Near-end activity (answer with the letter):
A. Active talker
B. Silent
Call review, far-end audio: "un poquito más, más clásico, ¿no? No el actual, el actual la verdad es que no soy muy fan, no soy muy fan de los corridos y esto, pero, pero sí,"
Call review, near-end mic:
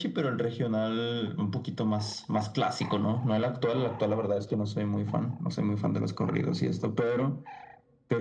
B